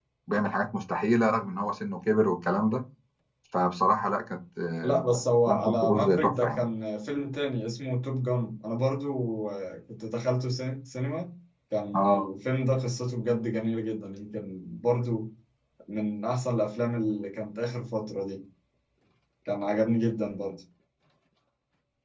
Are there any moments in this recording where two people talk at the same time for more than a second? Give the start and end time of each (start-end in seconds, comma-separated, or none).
4.8-6.6